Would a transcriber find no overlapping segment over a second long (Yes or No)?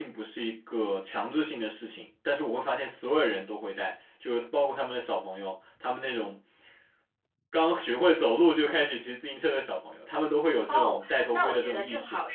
No